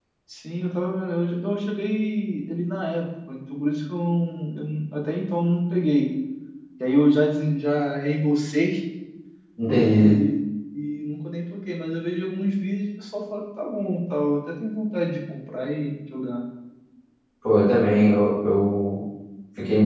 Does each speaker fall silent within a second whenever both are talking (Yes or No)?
Yes